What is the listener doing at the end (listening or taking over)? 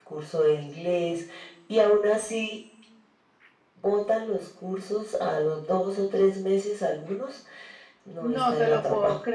taking over